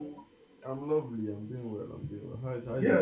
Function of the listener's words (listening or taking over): taking over